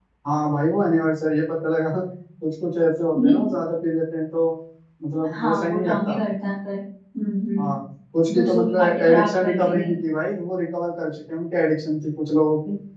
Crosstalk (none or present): present